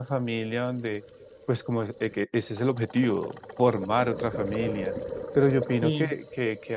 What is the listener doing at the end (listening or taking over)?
listening